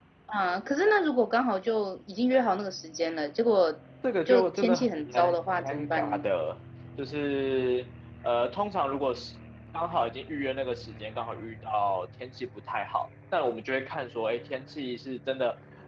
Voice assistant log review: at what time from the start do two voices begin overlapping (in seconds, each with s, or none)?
4.3 s